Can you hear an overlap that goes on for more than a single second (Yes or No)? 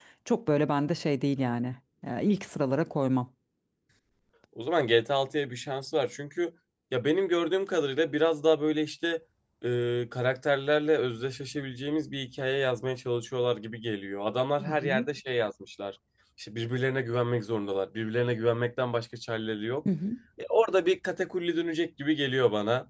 No